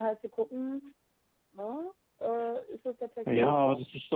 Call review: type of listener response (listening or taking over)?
taking over